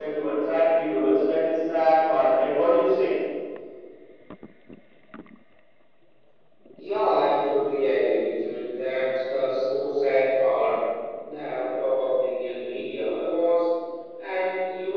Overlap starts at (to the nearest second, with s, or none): none